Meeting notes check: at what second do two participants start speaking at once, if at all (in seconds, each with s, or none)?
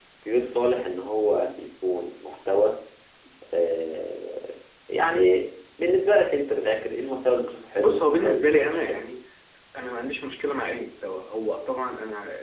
7.8 s